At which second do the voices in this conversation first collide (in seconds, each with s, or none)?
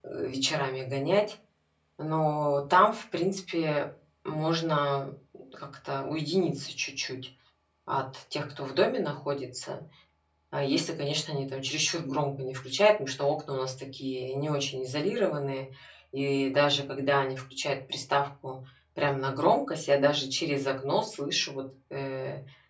none